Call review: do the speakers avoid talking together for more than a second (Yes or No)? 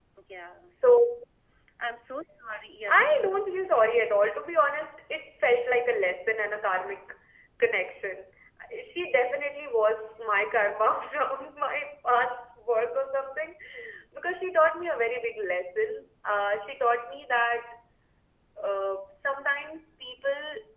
Yes